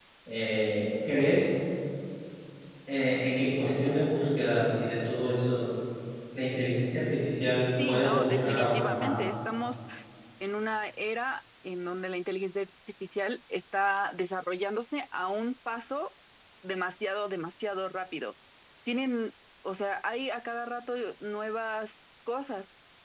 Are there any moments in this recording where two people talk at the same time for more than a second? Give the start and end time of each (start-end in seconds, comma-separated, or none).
7.9-9.3